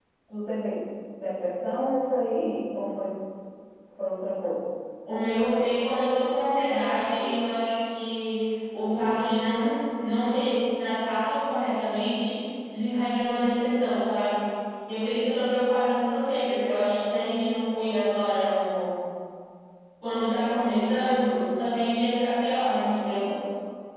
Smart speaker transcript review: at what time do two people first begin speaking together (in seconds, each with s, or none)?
none